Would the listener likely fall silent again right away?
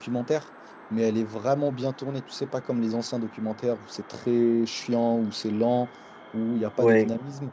Yes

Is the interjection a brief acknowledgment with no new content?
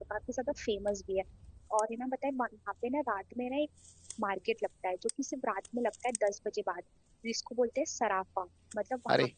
Yes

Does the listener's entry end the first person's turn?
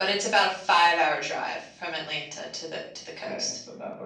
Yes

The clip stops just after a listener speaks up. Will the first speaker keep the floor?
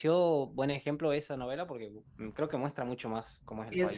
No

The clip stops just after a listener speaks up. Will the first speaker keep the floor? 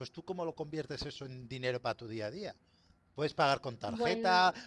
Yes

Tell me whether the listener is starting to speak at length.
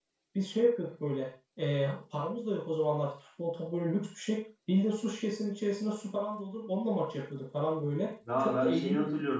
Yes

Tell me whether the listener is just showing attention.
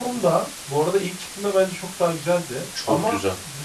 Yes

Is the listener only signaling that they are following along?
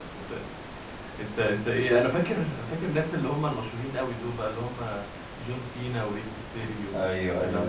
No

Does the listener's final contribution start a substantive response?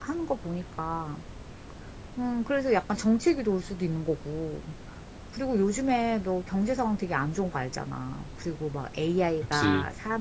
No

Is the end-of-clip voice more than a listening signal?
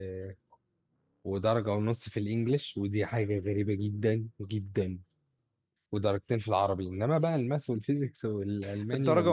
Yes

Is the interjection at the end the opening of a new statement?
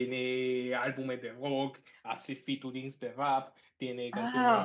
Yes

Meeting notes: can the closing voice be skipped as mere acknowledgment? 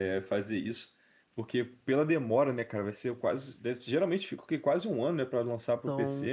No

